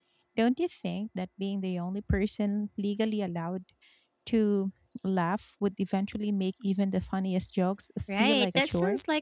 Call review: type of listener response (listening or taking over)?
taking over